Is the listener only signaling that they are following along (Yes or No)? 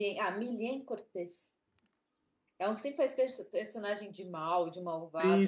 No